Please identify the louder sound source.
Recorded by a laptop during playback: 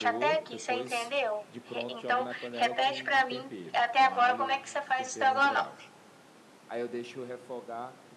echo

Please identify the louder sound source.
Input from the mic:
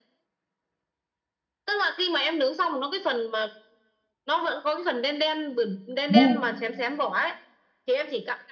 user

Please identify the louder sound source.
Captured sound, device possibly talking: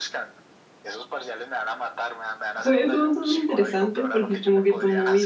user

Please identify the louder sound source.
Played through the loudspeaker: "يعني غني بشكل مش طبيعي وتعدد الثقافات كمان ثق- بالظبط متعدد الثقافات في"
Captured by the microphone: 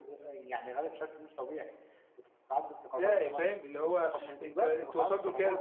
user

